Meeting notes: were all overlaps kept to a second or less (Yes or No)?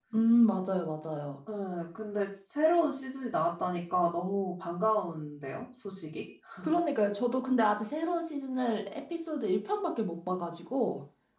Yes